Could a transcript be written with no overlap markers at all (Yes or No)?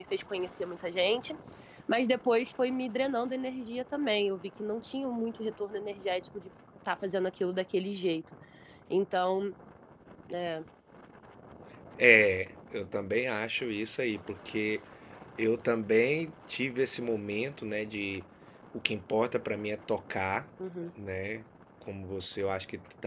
Yes